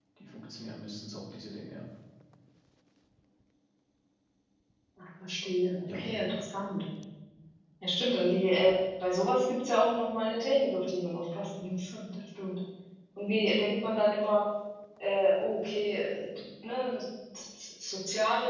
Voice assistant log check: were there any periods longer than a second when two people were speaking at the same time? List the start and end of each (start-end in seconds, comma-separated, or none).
none